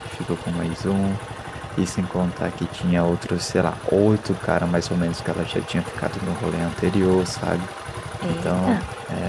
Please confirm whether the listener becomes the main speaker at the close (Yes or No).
No